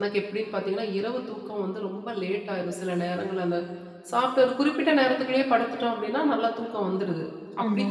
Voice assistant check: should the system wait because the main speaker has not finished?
Yes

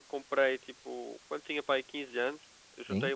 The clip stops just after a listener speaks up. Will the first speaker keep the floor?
Yes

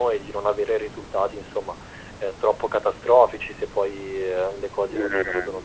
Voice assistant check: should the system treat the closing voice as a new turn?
Yes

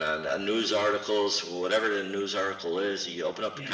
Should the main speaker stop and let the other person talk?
Yes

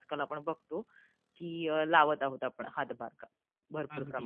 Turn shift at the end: Yes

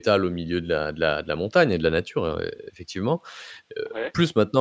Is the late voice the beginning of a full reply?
No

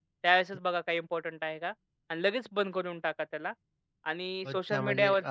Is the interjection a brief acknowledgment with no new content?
No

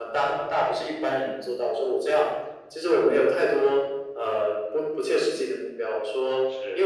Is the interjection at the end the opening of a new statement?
No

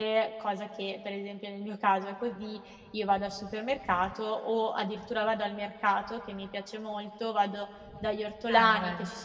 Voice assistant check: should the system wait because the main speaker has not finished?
Yes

